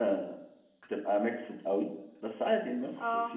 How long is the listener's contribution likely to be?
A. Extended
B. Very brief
B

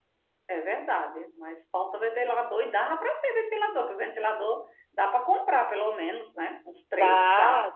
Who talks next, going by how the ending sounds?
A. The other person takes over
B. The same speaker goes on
A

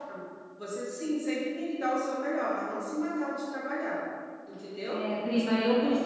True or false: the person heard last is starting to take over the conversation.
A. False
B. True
B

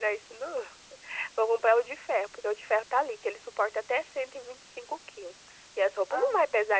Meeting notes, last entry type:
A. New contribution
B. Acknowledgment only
B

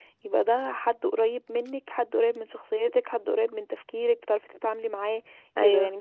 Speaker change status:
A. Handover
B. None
B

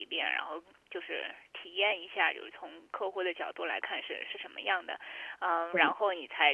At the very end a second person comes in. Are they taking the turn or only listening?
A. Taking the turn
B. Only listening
B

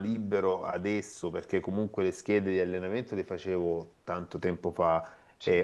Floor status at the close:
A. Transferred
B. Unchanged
B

